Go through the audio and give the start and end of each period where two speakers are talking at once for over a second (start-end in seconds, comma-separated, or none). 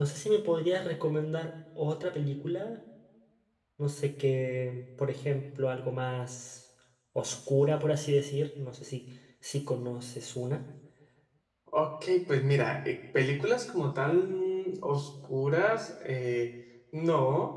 none